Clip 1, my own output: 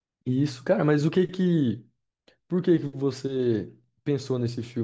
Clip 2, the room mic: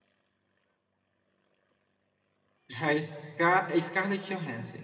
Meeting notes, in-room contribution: present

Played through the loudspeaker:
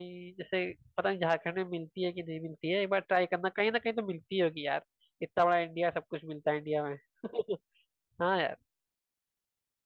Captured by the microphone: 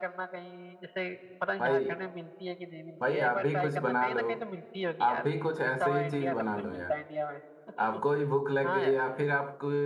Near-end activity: present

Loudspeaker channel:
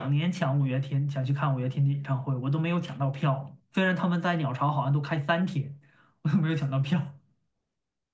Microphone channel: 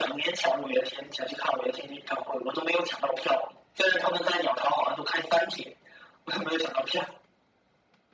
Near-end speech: none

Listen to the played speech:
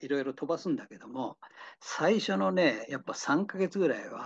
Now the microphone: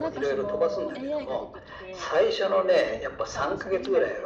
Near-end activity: present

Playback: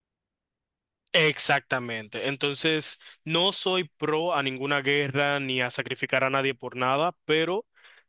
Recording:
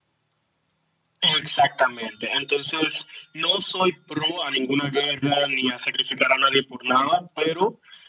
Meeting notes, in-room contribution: none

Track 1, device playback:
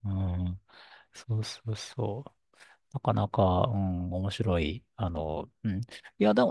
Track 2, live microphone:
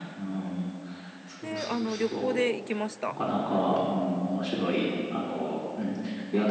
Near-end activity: present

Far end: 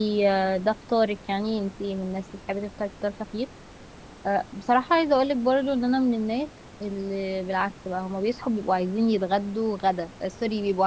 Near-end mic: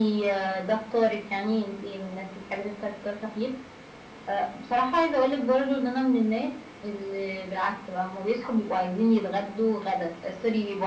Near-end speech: none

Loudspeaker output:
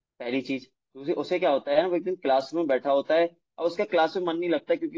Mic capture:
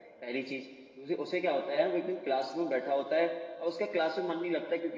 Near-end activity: none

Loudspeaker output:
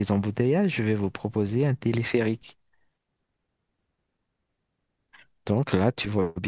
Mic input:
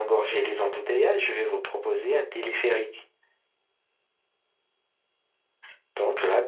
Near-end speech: none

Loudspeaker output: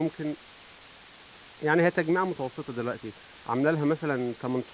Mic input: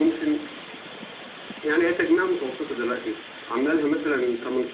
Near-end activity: none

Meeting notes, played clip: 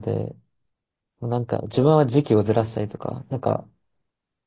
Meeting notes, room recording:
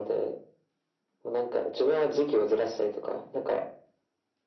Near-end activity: none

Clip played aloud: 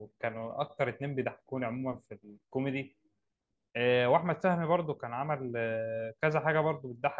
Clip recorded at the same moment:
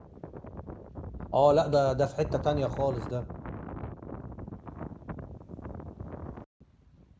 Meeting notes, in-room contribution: present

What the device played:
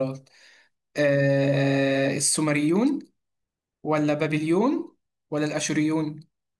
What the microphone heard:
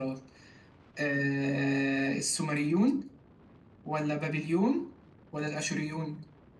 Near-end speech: none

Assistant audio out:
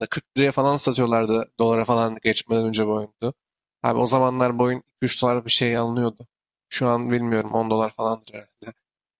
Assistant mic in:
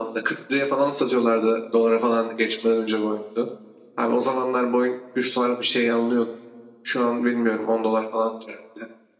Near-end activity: none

